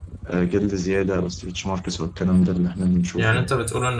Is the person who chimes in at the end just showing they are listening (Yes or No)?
No